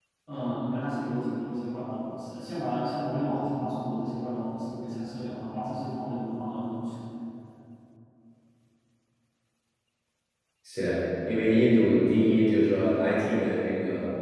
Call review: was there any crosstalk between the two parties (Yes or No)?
No